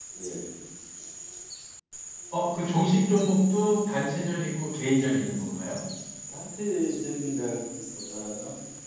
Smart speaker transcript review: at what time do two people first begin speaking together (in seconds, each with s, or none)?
none